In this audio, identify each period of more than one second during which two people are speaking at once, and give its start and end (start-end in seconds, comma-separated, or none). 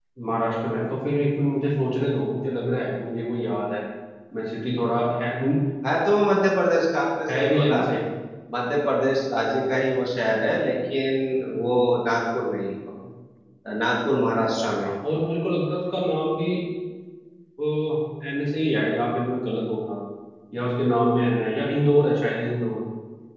none